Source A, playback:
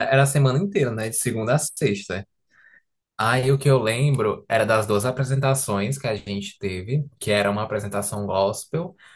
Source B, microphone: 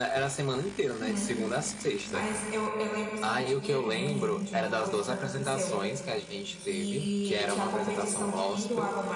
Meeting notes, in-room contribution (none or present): present